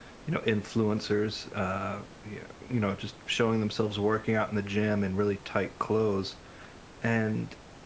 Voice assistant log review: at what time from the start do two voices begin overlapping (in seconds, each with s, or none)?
none